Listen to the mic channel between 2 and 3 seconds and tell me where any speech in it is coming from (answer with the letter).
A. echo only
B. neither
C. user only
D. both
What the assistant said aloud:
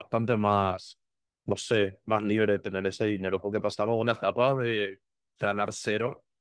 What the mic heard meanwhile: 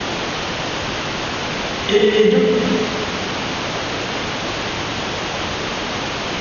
C